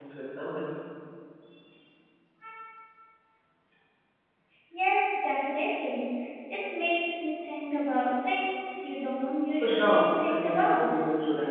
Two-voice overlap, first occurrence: 10 s

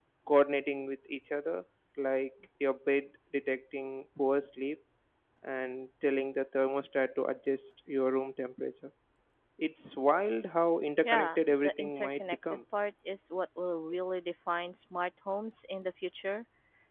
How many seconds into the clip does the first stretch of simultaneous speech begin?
11 s

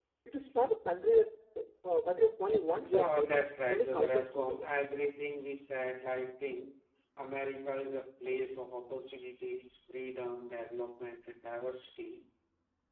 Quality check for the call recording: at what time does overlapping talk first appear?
3 s

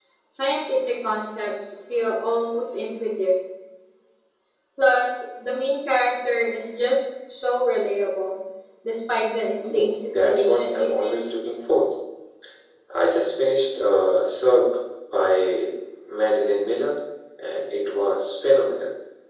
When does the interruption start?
10 s

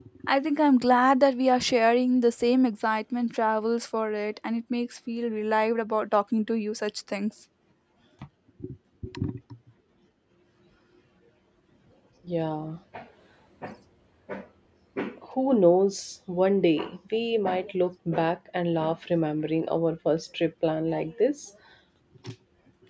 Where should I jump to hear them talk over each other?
none

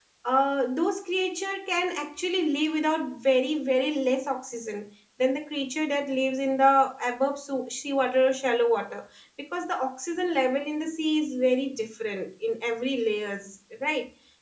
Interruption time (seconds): none

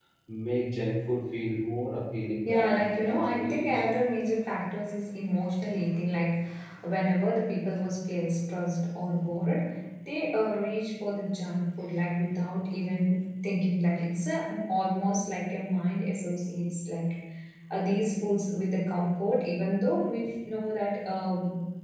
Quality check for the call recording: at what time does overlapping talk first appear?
2 s

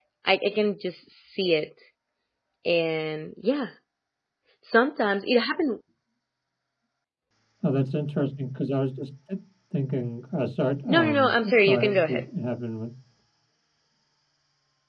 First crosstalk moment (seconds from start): 11 s

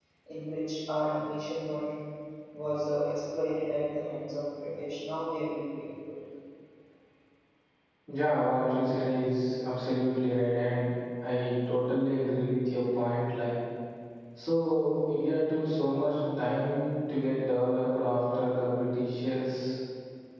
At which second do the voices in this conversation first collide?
none

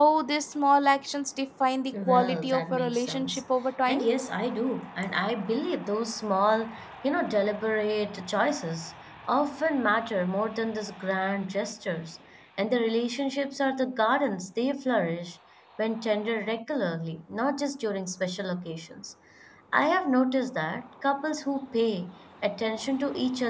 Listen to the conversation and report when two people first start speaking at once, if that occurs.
2 s

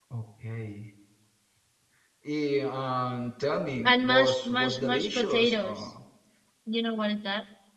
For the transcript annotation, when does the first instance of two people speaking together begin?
4 s

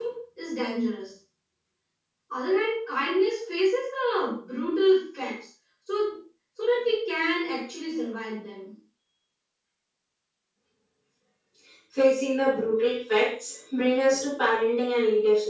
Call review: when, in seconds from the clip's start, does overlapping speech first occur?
none

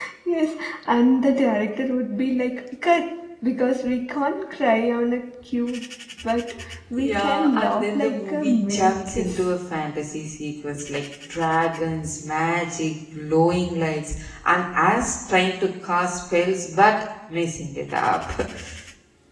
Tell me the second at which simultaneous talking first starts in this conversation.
7 s

